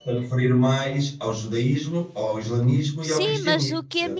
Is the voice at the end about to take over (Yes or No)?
Yes